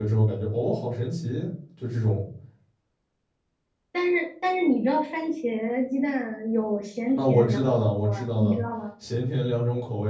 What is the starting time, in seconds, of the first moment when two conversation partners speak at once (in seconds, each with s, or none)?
7.2 s